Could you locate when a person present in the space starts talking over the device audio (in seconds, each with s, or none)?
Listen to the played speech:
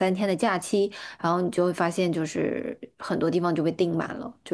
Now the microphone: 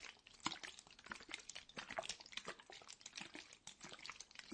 none